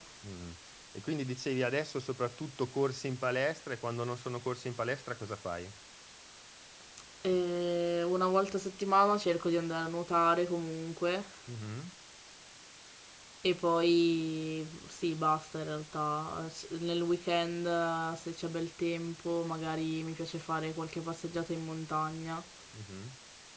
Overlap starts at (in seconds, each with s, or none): none